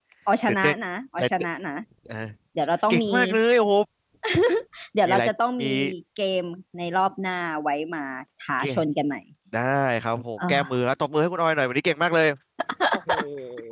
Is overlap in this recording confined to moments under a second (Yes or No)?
Yes